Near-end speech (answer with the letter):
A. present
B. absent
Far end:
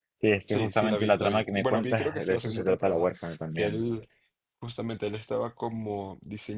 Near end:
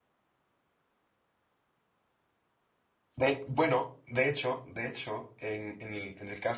A